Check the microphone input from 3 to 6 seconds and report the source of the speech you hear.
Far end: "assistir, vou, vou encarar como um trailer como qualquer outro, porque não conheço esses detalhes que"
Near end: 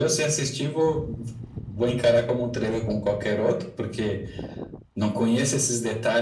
echo only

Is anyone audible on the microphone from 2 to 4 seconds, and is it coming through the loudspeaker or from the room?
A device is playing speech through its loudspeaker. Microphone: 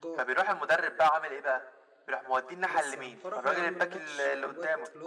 both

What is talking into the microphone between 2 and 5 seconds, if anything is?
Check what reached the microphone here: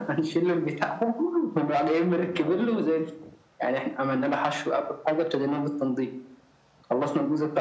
both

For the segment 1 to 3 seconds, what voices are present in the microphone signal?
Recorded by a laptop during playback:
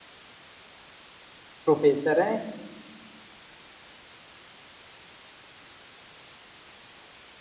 user only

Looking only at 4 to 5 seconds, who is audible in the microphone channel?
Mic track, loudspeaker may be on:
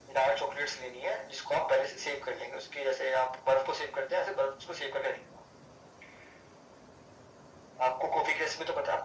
echo only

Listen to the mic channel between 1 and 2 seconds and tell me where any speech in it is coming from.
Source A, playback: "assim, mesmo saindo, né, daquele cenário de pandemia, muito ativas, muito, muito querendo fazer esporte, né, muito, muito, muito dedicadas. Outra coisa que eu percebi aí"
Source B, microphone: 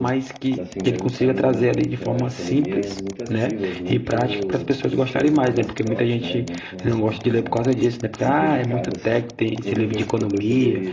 both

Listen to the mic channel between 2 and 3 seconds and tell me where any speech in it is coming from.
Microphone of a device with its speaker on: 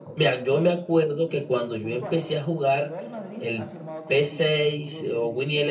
both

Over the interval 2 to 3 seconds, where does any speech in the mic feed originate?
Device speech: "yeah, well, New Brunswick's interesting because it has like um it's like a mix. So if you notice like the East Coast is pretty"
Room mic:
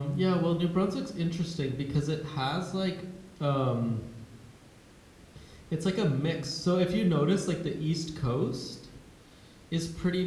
echo only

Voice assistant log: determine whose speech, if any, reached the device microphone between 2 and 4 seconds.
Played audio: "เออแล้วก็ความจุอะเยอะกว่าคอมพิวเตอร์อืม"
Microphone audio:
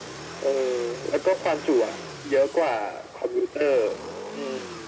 echo only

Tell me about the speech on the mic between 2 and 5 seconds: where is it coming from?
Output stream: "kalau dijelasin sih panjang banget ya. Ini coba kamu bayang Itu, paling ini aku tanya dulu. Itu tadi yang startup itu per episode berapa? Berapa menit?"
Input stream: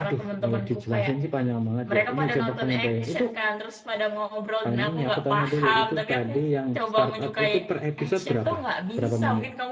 both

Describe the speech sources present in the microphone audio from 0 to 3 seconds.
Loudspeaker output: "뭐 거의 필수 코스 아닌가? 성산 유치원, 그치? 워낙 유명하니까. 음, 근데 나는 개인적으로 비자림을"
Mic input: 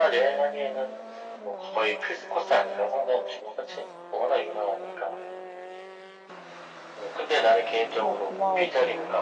echo only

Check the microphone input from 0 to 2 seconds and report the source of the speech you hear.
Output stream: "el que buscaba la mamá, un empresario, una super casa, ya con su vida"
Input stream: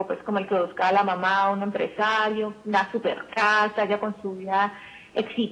echo only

